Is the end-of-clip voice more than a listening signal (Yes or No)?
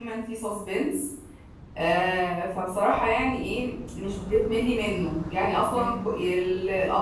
No